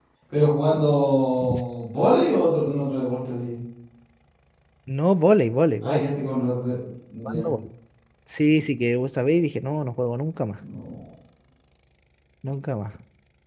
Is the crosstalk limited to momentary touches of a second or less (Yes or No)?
Yes